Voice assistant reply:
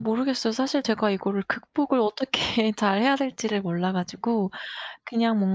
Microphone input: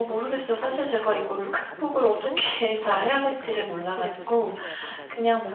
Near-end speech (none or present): present